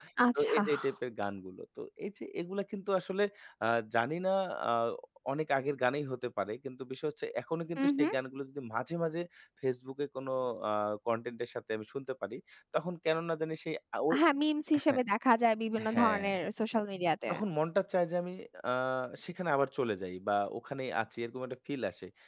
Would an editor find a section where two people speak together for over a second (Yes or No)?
No